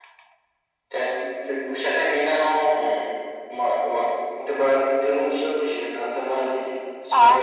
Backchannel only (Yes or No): No